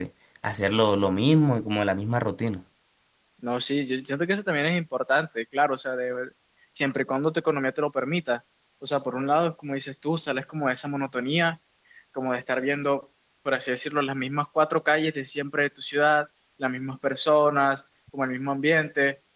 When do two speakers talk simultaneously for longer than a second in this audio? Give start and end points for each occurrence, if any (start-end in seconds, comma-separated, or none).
none